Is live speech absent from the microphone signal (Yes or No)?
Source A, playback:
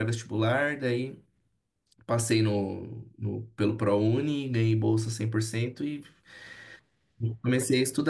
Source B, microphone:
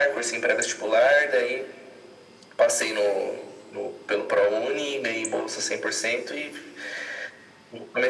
Yes